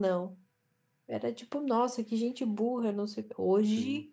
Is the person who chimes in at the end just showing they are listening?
Yes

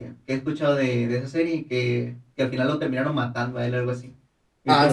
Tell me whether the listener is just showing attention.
No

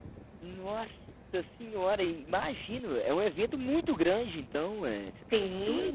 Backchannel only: No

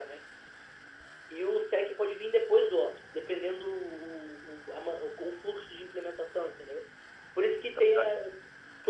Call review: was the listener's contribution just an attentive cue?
Yes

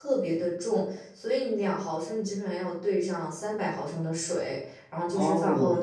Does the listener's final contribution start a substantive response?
Yes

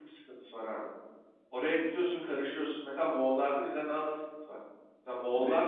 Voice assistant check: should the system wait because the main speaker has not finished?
Yes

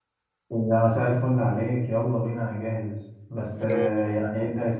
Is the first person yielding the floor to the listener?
No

